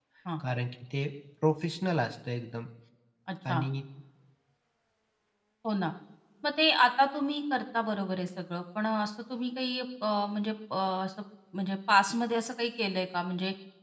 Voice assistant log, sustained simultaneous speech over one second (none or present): none